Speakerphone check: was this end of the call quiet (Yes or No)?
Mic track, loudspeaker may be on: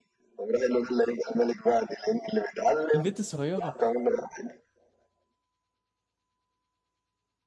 No